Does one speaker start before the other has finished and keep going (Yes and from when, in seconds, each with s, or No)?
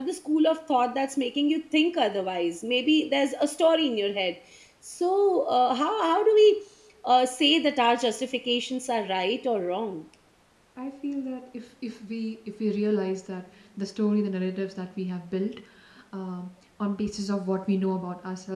No